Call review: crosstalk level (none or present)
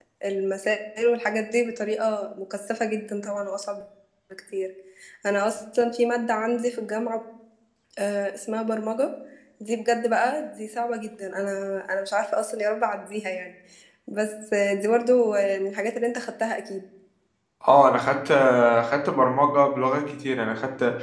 none